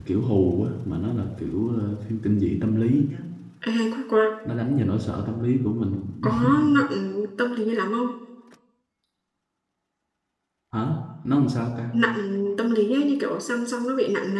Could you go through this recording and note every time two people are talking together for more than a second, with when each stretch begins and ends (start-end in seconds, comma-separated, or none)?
none